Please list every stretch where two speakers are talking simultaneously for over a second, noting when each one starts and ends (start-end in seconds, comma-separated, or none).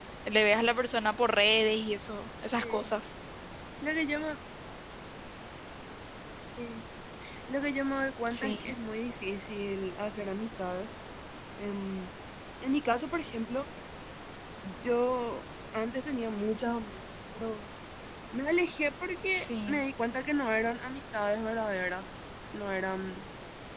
none